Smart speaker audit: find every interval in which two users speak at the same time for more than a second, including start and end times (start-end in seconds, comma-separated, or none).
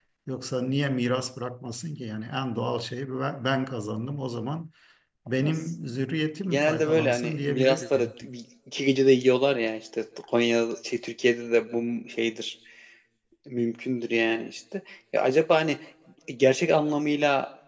6.5-8.1